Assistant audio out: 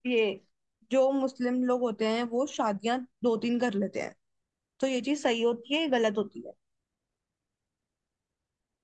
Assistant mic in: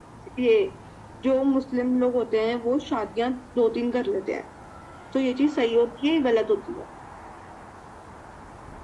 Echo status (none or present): present